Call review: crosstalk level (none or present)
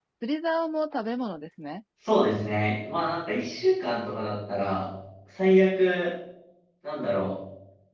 none